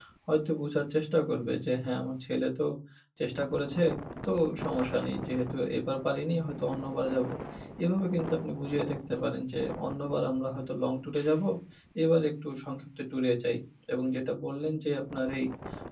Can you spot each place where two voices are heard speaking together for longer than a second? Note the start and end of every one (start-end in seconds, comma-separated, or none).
none